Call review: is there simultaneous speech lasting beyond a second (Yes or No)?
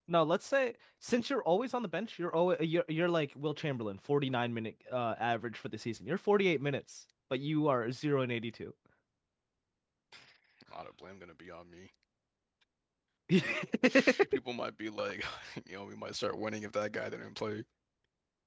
No